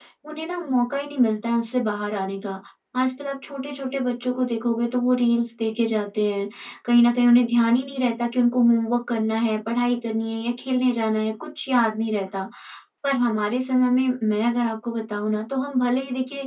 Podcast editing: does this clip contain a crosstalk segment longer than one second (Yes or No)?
No